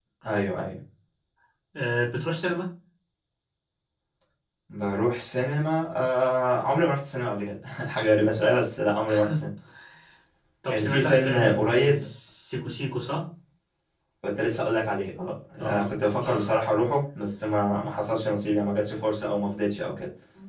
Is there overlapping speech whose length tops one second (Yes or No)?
Yes